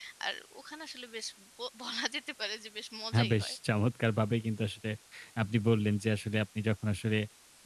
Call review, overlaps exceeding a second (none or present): none